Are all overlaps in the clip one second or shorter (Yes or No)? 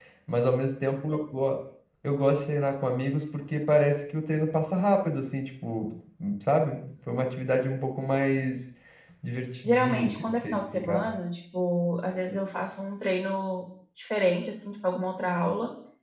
No